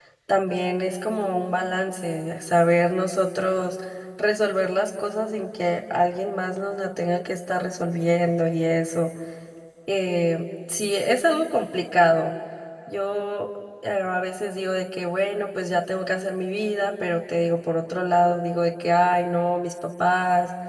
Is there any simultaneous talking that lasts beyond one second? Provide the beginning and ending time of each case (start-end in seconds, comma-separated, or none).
none